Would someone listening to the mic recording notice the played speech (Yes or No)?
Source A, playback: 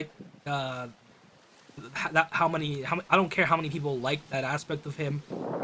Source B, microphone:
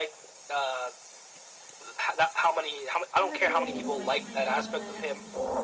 Yes